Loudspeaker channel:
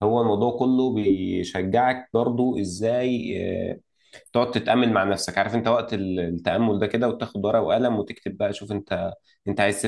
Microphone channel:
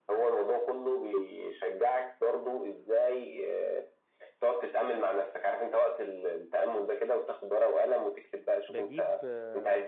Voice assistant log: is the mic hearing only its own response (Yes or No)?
No